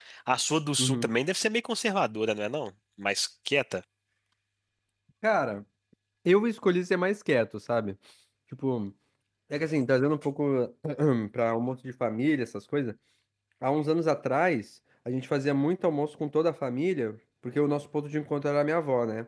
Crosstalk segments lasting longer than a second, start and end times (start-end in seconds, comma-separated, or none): none